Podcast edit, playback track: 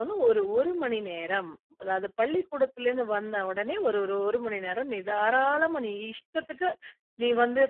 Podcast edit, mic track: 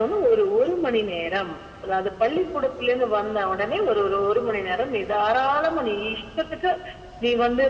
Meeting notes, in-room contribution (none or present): none